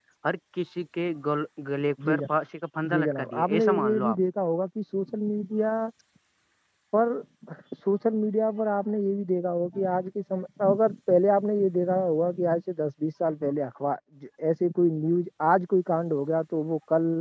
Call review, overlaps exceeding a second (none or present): present